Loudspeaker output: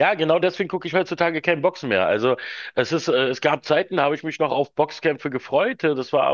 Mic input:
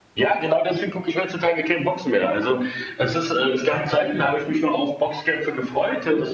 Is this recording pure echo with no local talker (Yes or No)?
Yes